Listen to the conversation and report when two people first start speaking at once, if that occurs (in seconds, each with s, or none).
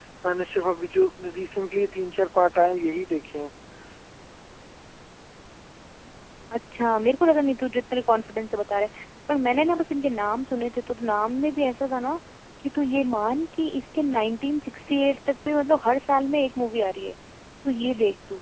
none